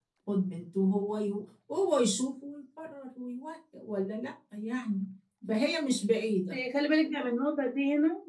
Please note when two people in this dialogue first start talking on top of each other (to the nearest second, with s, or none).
none